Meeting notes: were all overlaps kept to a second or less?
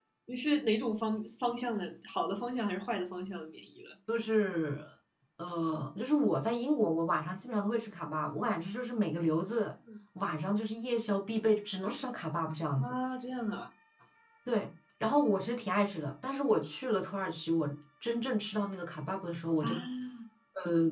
Yes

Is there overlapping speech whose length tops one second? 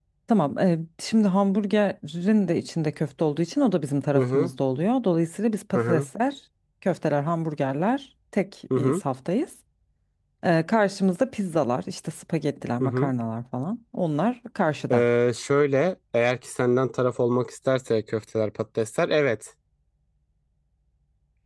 No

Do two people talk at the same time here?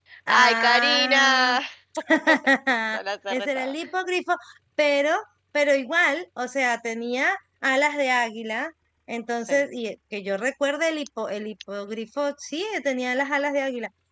Yes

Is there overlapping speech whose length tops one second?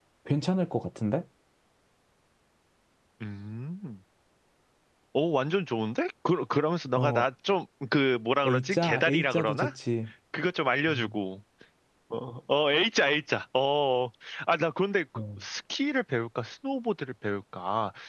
Yes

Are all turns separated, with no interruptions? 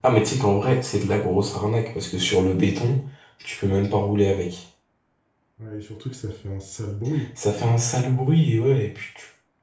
Yes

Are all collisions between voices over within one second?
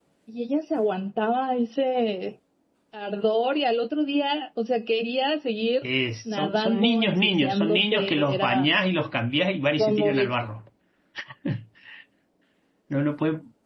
No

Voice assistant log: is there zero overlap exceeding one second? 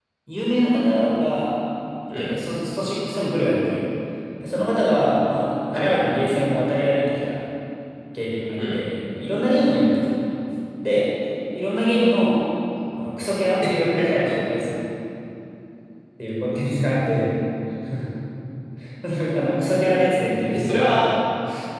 Yes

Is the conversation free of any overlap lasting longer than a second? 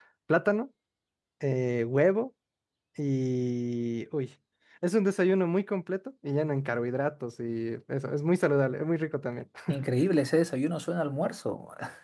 Yes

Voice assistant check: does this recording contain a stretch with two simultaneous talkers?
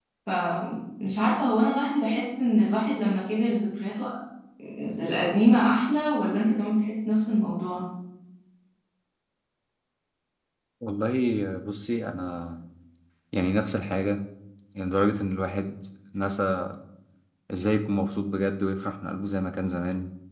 No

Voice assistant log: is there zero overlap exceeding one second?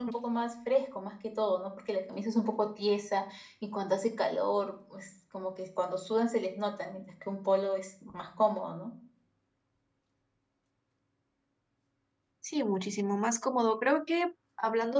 Yes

